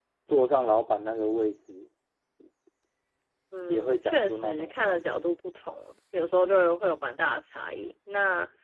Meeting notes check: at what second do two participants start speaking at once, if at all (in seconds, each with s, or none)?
3.7 s